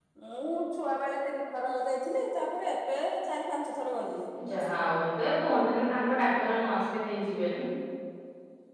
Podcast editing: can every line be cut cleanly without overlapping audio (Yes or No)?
Yes